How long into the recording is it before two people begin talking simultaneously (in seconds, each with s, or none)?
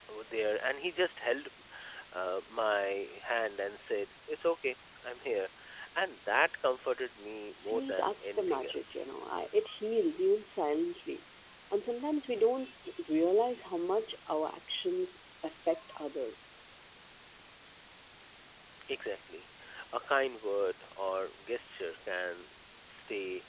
7.6 s